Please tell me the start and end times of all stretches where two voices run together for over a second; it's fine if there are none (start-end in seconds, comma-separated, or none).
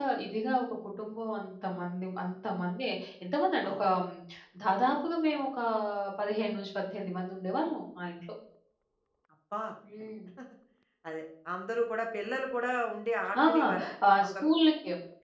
none